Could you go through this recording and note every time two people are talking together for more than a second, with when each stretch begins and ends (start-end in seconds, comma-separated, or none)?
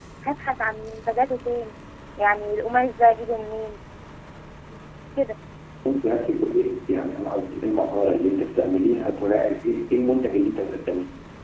none